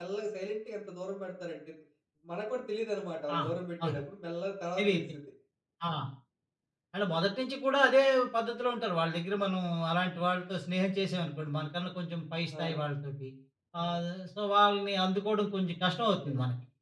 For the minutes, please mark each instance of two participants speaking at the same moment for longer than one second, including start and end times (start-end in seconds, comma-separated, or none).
none